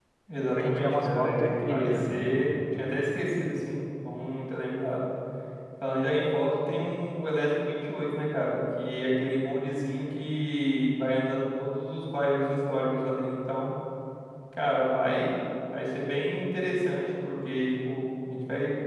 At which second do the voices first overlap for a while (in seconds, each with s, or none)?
0.5 s